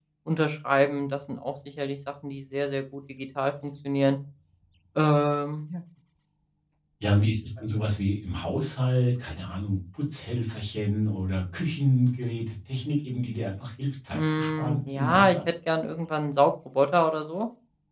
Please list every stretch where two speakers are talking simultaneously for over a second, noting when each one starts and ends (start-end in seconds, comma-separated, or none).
14.1-15.4